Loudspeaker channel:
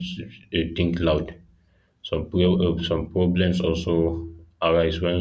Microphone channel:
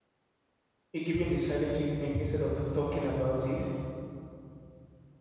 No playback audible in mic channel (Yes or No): Yes